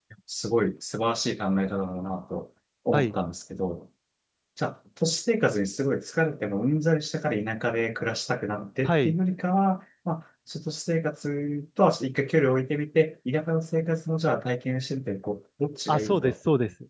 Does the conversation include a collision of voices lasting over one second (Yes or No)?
No